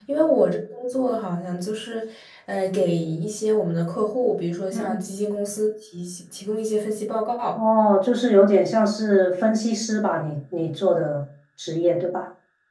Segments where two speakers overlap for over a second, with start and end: none

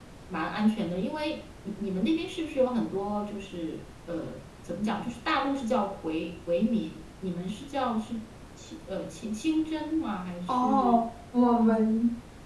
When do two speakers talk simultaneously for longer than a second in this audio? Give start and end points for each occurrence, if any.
none

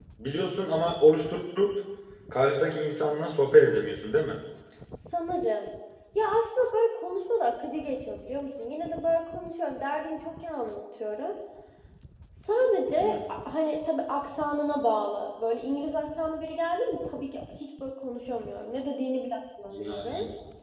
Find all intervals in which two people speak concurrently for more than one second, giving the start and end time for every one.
none

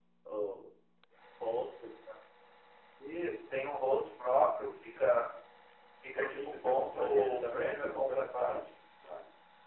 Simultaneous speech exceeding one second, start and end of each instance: 6.1-8.6

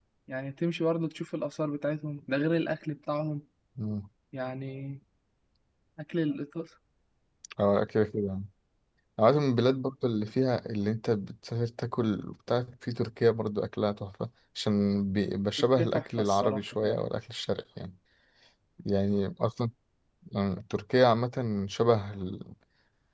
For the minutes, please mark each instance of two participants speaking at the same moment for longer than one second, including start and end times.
15.8-17.0

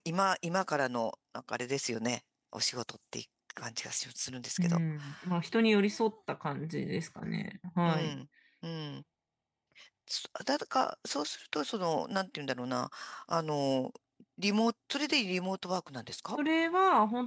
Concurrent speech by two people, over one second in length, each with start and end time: none

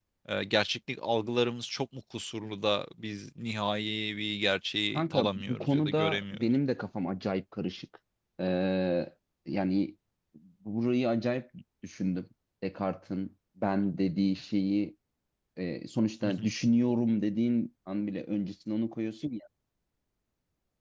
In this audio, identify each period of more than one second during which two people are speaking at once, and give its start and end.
4.9-6.5

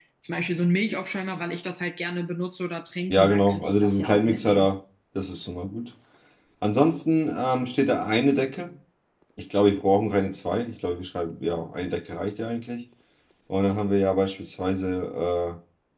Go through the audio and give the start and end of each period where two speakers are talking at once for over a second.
3.1-4.7

